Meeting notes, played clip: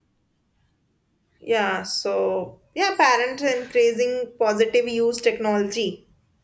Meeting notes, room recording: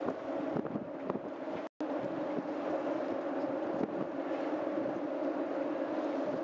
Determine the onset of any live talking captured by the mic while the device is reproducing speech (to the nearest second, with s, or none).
none